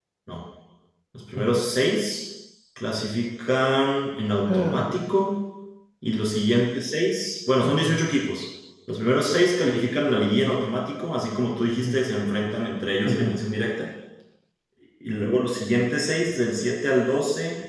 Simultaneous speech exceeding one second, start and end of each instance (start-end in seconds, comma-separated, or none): none